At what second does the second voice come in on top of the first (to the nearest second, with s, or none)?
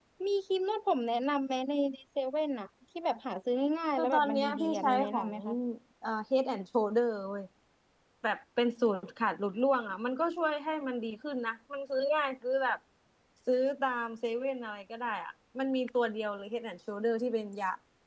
4 s